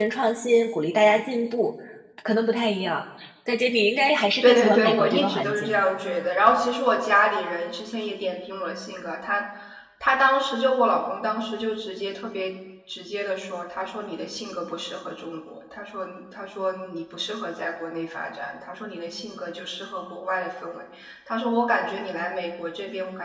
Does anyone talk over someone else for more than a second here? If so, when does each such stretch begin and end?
4.4-5.7

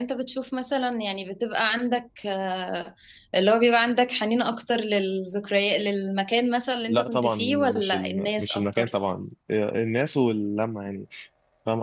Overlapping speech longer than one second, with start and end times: 6.9-8.9

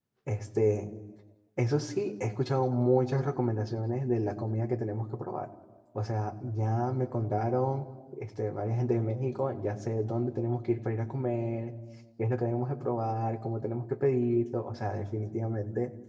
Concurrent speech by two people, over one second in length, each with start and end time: none

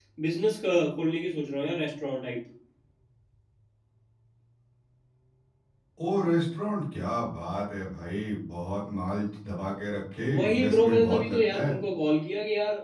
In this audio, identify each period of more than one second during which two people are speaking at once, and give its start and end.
10.3-11.7

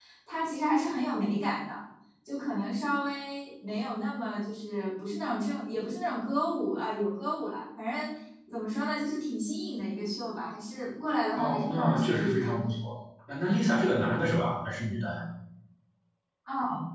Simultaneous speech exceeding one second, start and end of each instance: 11.4-12.7

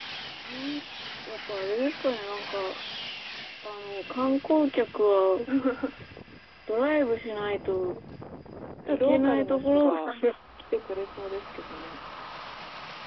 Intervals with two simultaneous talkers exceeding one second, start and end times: 8.9-10.1

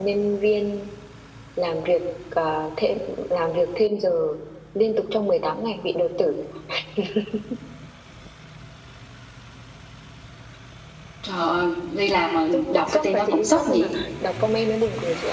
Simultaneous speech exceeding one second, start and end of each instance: 12.5-13.9

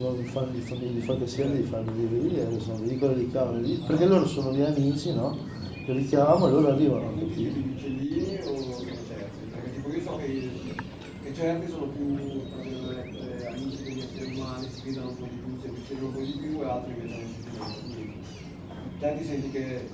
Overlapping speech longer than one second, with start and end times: 6.1-7.6

